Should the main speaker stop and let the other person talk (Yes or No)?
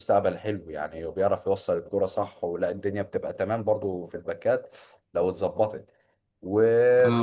No